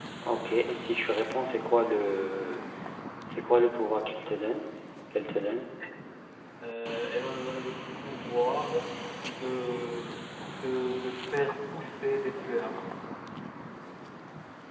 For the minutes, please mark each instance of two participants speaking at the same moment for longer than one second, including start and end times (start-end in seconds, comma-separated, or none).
none